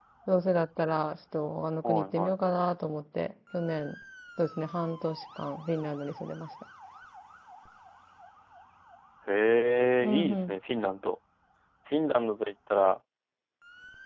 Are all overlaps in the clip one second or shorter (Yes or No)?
Yes